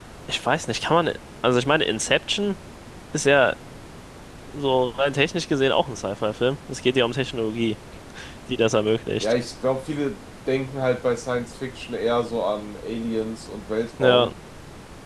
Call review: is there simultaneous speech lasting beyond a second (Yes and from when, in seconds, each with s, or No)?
No